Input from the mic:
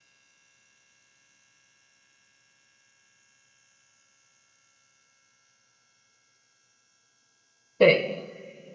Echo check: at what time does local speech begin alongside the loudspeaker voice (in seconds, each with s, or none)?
7.8 s